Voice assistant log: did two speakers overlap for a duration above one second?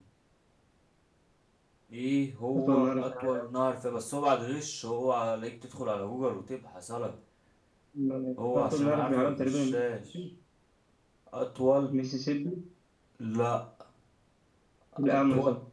Yes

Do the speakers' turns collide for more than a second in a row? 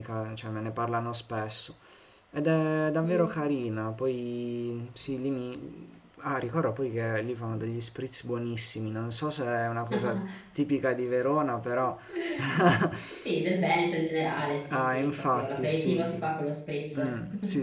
Yes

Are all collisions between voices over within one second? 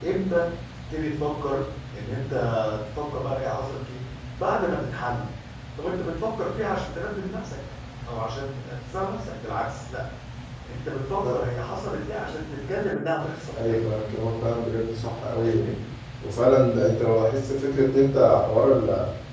Yes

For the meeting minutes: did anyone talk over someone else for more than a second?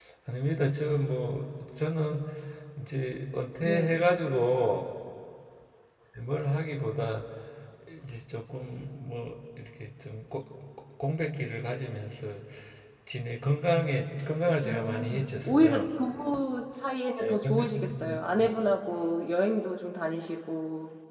Yes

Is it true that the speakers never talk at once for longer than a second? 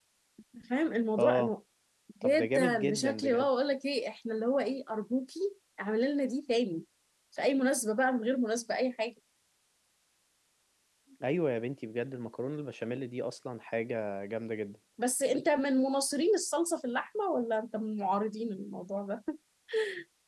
No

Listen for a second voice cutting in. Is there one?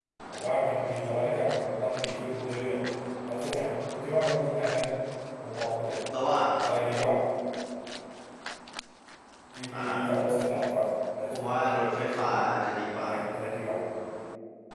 Yes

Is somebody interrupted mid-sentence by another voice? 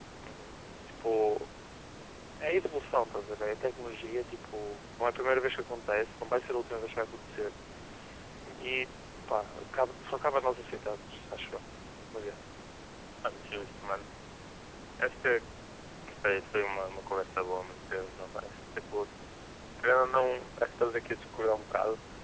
No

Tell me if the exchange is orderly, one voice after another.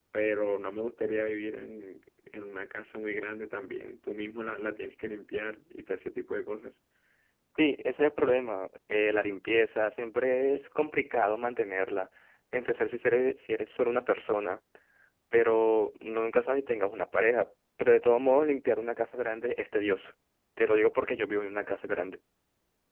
Yes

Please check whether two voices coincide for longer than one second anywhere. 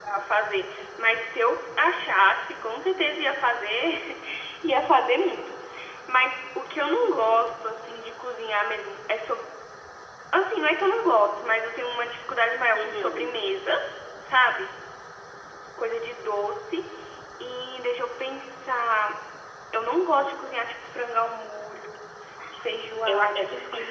Yes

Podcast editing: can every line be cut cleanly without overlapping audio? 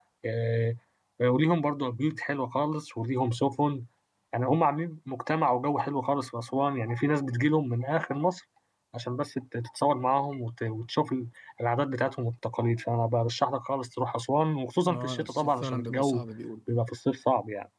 No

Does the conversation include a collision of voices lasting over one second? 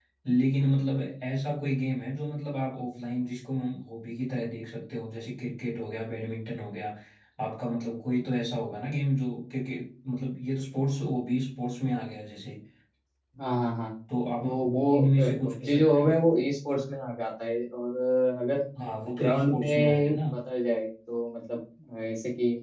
Yes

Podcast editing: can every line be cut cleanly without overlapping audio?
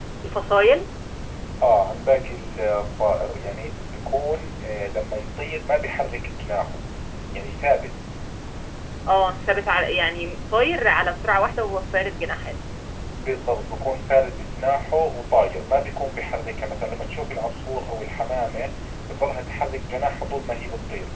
Yes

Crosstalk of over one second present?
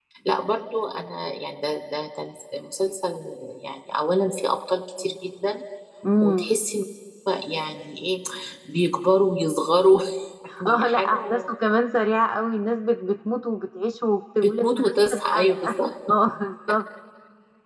Yes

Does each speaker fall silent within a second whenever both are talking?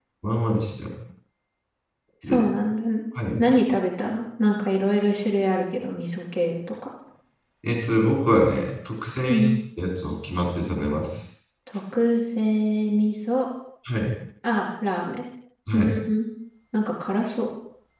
Yes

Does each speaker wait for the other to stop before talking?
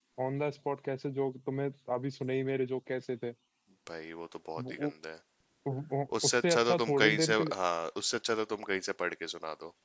No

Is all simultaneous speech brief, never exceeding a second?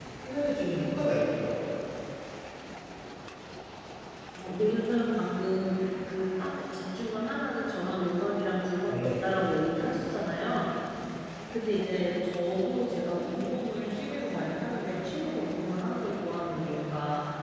Yes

